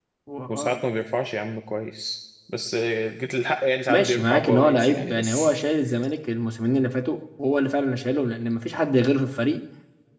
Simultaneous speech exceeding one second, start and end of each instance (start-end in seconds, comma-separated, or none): 3.9-5.5